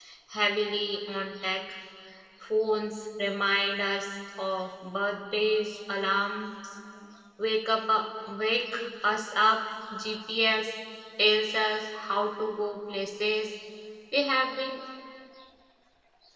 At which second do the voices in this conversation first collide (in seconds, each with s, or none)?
none